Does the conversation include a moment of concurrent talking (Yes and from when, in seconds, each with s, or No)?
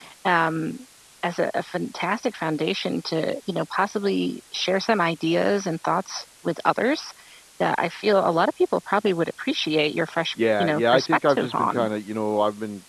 Yes, from 10.4 s